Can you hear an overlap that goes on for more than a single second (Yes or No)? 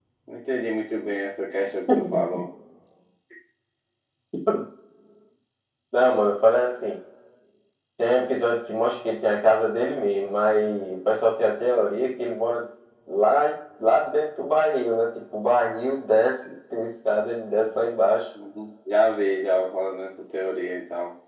No